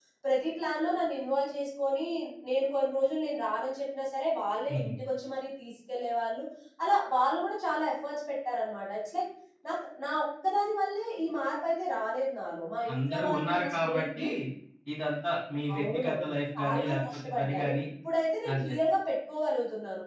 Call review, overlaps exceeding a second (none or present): present